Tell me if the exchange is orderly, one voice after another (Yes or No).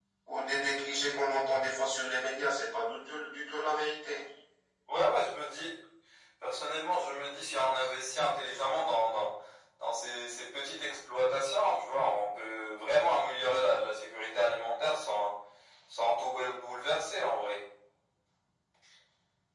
Yes